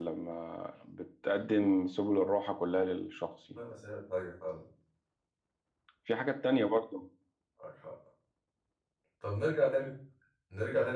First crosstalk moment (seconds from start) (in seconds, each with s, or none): none